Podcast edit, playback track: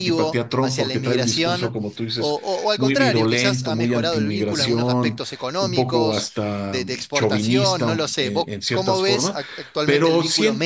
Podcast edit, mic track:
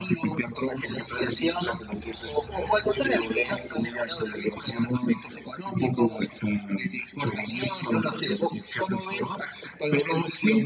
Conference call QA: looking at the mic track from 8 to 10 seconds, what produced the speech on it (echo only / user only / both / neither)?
echo only